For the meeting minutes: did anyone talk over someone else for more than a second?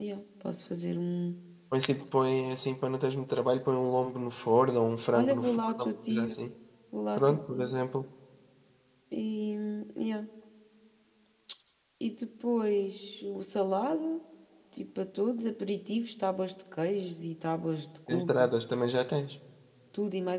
Yes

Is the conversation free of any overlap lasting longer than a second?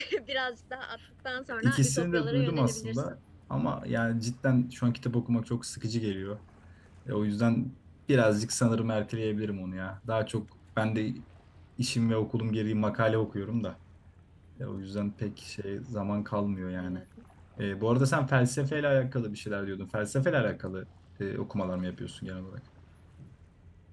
No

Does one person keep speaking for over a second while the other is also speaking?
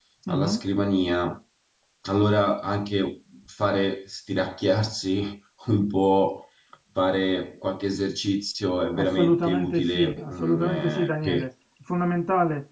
Yes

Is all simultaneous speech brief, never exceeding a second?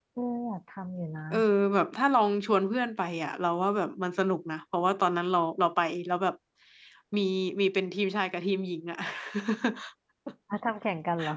Yes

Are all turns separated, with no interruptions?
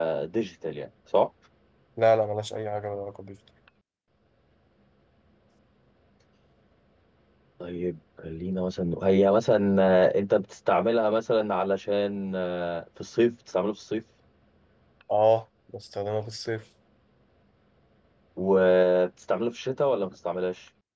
Yes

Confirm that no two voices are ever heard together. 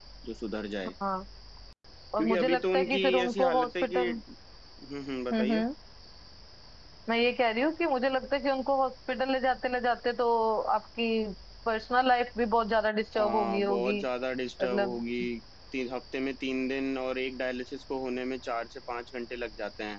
No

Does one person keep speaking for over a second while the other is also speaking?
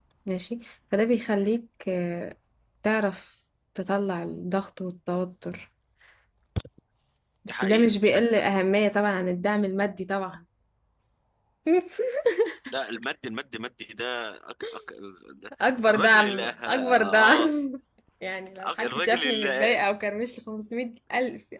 Yes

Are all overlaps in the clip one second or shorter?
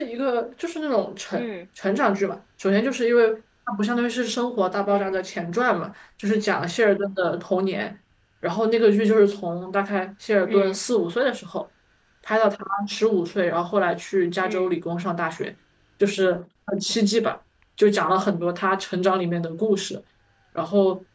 Yes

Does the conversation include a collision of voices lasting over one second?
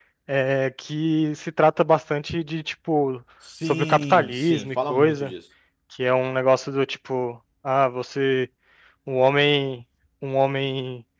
Yes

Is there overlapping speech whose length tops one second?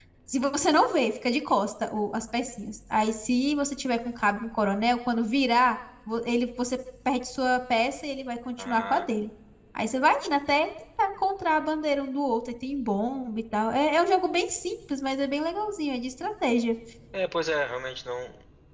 No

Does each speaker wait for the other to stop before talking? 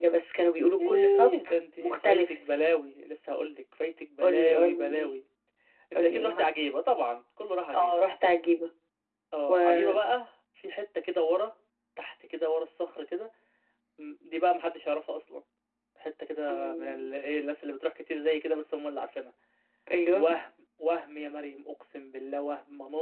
No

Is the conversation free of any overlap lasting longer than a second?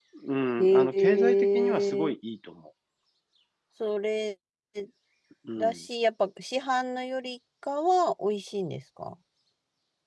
No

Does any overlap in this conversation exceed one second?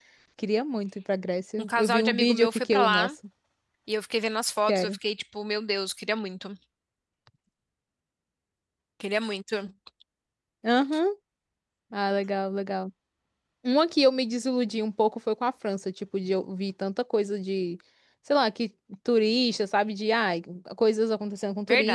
Yes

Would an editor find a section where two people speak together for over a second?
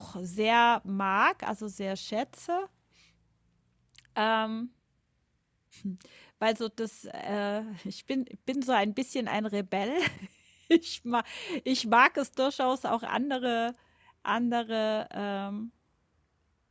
No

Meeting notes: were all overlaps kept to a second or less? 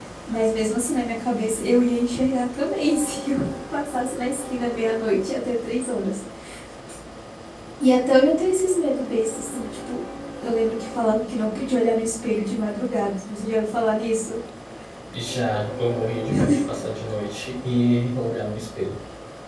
Yes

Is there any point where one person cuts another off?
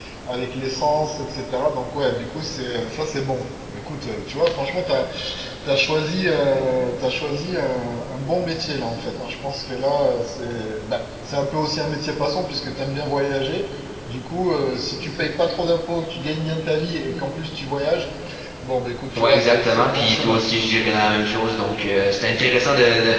Yes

